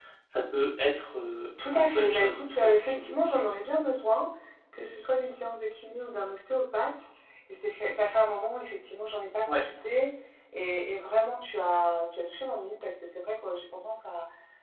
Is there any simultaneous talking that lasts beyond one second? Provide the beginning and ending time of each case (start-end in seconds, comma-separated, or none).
1.8-3.1